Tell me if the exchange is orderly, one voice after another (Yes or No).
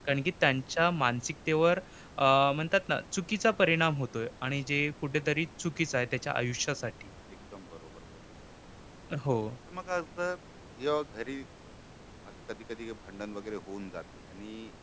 Yes